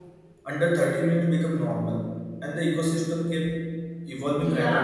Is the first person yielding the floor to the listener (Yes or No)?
Yes